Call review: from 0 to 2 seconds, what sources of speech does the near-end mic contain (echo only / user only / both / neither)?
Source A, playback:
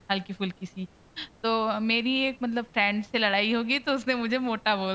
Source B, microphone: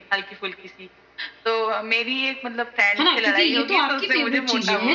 echo only